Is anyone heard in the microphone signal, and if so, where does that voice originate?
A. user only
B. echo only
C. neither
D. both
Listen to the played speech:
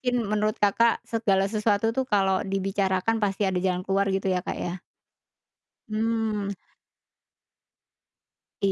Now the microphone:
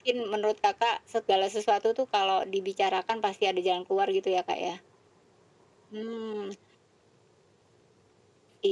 B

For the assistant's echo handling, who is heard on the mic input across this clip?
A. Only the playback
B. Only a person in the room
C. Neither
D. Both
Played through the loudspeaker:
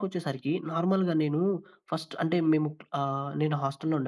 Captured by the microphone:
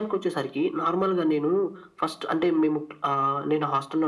A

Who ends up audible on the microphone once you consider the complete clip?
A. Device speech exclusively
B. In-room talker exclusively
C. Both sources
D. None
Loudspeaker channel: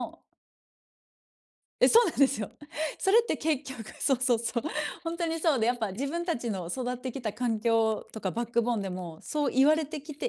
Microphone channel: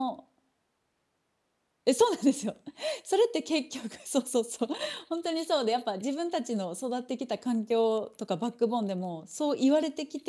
A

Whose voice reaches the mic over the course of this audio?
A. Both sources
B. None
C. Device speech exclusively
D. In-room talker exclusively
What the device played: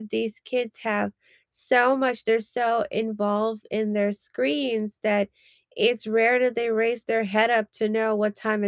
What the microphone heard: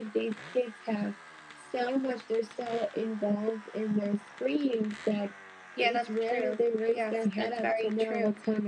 A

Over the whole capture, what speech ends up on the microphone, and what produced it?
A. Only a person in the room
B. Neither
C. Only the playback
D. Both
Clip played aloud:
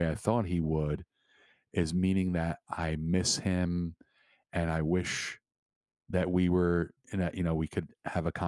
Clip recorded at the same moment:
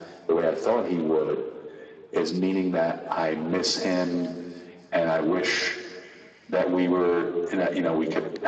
C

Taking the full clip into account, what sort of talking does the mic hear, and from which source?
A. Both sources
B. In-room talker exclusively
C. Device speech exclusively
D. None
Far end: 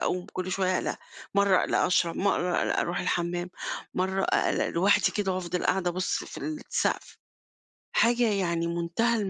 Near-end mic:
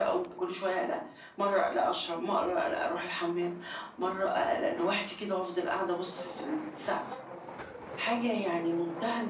C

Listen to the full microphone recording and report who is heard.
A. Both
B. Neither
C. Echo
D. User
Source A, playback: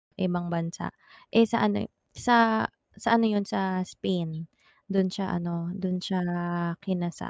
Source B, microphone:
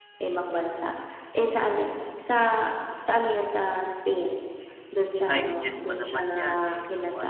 A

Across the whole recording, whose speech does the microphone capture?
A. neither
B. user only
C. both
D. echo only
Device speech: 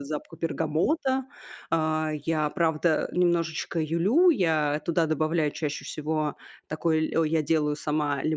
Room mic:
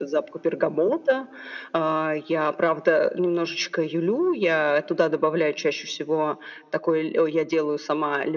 D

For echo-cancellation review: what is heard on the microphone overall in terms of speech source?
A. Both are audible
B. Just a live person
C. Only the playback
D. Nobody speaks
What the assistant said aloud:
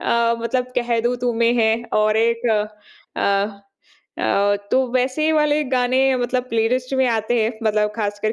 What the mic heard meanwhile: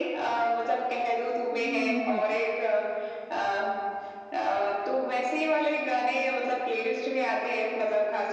A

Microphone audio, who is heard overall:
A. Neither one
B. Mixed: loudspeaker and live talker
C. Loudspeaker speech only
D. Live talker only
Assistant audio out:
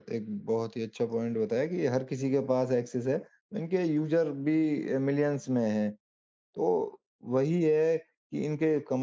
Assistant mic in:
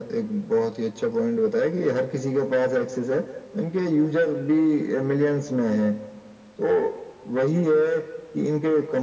C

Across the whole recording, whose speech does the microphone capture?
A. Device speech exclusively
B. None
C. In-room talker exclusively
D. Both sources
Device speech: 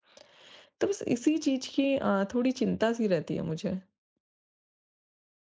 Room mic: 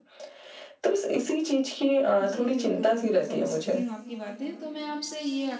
D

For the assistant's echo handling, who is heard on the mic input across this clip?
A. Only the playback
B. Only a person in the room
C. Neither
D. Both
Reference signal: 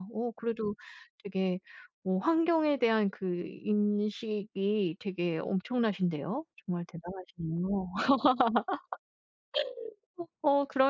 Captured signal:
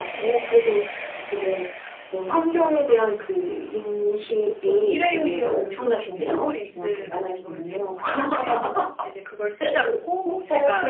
D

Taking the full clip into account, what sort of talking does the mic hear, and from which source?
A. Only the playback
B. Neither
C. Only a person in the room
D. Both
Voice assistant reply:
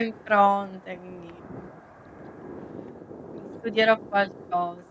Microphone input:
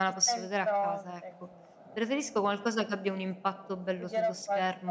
D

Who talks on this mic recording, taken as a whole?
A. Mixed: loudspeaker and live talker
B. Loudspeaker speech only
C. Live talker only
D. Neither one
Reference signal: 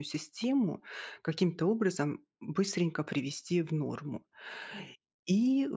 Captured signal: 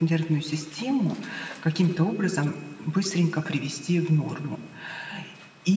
B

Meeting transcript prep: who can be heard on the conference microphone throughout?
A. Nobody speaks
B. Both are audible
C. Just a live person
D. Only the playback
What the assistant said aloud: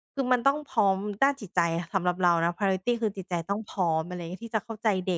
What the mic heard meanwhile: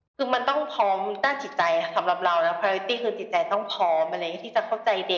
D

